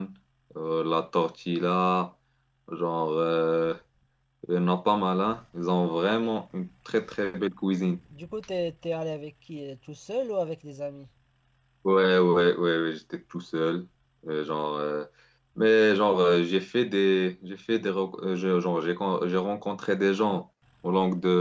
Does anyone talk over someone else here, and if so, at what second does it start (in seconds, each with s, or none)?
none